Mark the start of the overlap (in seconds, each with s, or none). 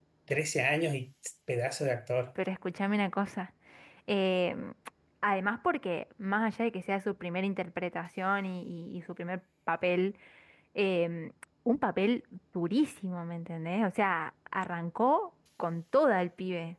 none